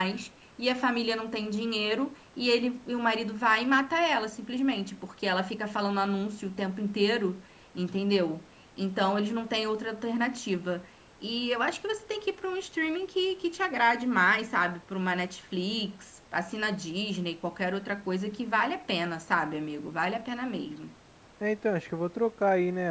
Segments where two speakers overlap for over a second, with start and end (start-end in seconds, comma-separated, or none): none